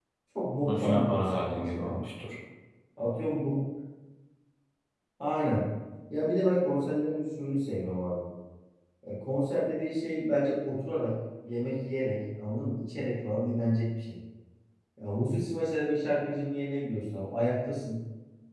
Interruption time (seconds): 0.7 s

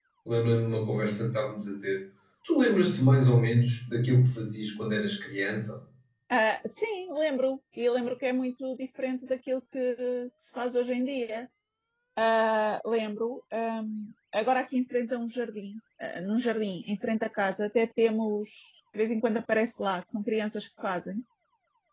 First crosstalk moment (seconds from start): none

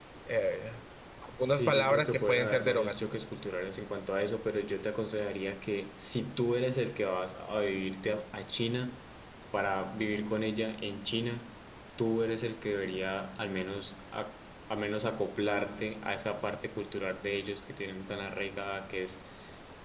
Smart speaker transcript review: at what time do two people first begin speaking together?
1.4 s

